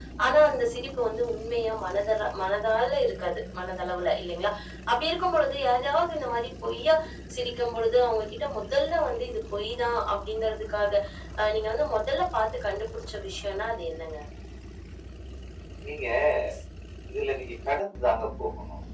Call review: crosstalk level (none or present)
none